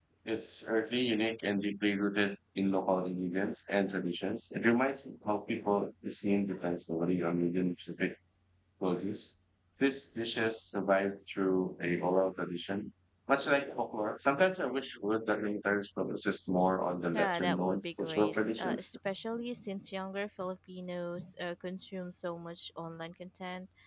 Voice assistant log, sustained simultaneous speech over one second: present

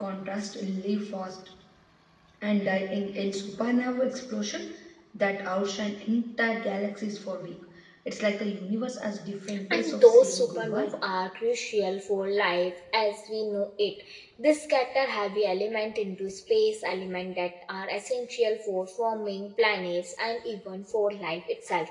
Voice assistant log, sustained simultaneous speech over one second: present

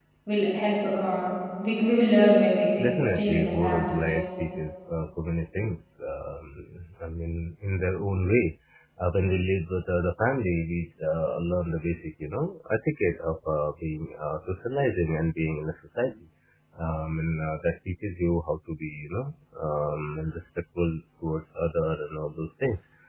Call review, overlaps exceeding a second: present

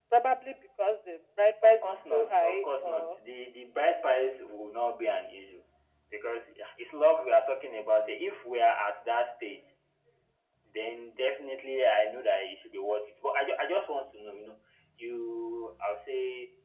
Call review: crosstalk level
present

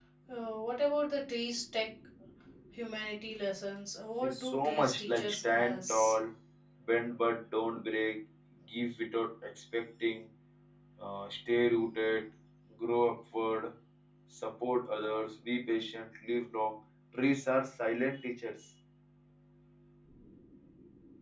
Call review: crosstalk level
present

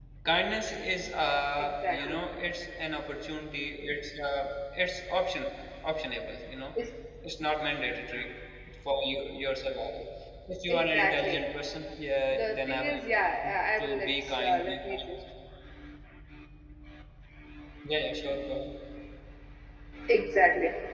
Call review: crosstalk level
present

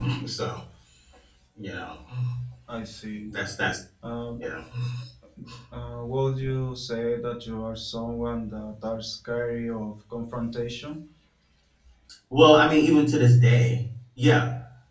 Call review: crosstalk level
none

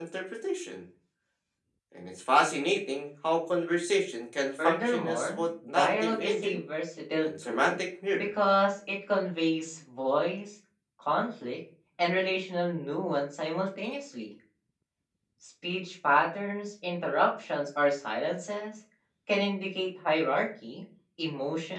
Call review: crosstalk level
present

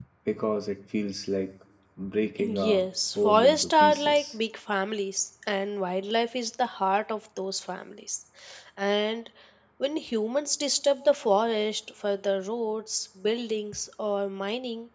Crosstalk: present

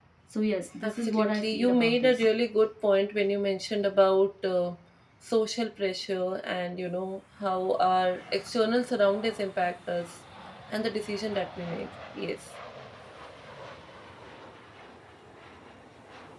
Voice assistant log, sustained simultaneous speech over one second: present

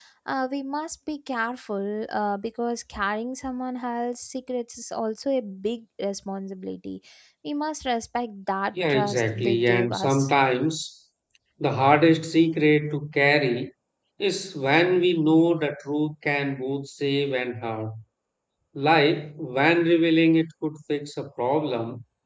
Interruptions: present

